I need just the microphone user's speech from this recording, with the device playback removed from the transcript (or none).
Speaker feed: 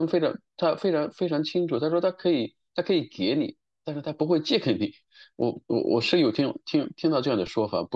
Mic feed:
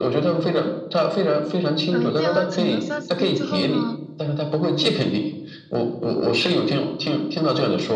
呃，垫完钱三四天之后呢，